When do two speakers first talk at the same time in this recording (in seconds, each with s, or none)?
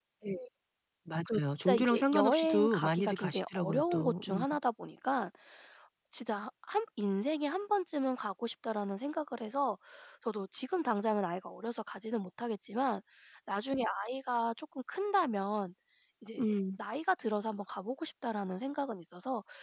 1.3 s